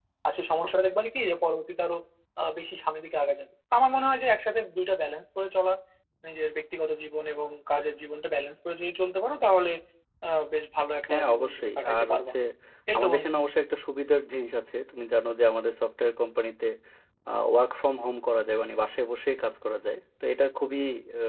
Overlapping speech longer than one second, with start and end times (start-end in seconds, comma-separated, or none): 11.1-12.3